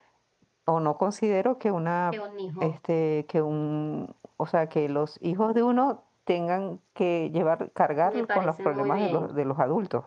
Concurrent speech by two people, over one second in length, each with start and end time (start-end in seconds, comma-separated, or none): 8.0-9.3